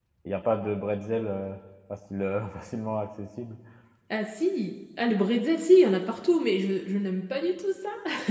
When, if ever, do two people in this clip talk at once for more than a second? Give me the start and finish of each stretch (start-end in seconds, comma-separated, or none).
none